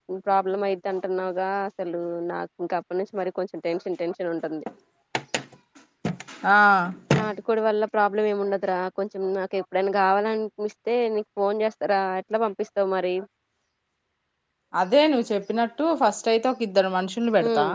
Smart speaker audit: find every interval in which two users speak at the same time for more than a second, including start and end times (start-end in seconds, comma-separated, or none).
none